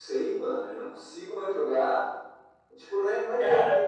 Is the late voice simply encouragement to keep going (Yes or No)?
Yes